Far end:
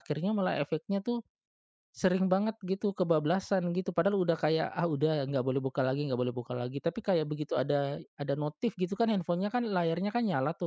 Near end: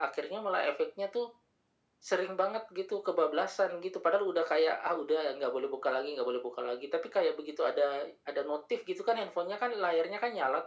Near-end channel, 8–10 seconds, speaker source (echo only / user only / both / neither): echo only